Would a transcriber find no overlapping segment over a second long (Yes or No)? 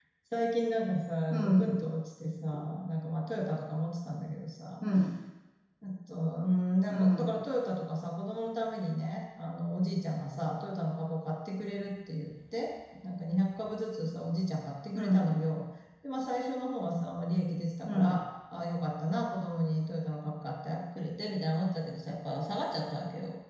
Yes